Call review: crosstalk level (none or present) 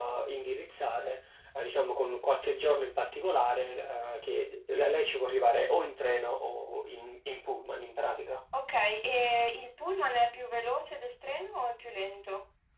none